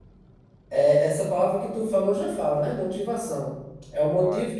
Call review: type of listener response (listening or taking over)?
listening